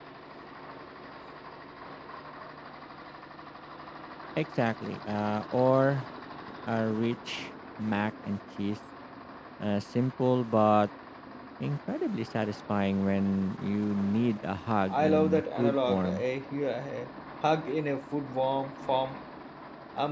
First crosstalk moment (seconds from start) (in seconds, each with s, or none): 14.9 s